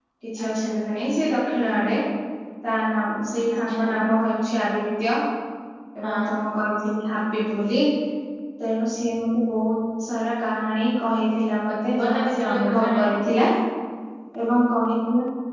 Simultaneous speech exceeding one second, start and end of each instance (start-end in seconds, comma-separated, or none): 11.7-13.1